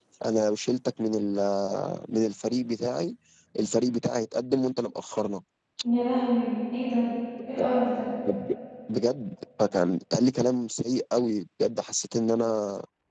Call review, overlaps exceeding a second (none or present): none